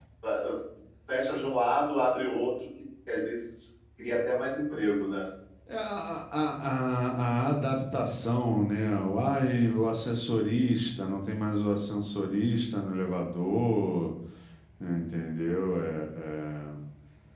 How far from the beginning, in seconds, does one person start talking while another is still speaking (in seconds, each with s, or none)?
none